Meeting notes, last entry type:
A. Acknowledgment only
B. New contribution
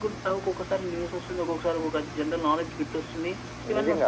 B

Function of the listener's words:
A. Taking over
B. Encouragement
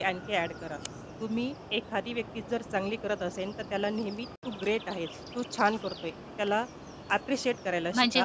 A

